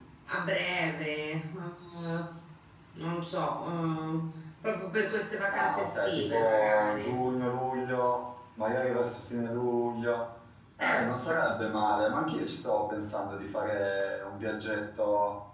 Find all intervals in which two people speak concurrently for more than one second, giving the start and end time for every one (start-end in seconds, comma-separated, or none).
5.5-7.1